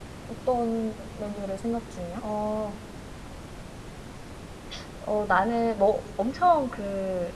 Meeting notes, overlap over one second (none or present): none